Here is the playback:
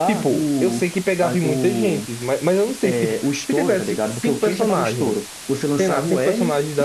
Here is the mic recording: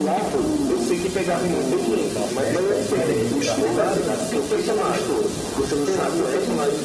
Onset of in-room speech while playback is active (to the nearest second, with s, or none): 2 s